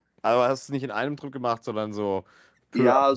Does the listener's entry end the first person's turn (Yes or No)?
Yes